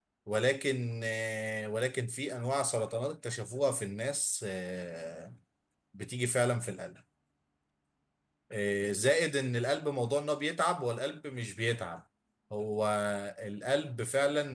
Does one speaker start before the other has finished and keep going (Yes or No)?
No